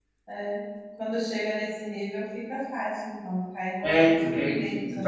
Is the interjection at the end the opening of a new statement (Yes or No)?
Yes